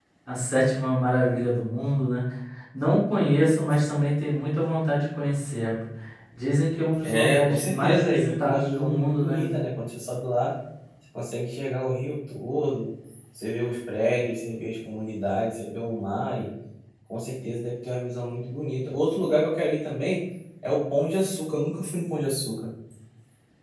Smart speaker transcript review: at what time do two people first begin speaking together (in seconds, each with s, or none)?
7.0 s